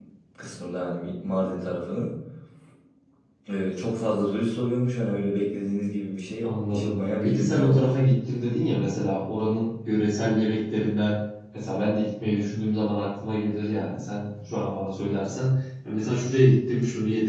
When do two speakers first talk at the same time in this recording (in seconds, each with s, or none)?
6.4 s